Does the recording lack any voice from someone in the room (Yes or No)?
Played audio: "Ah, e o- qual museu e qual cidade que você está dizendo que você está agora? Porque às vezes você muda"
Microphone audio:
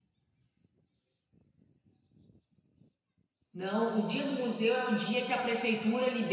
No